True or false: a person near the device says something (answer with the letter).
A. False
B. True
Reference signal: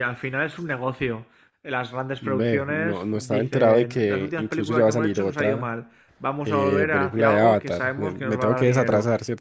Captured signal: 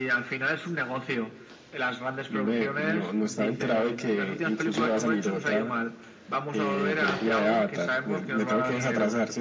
A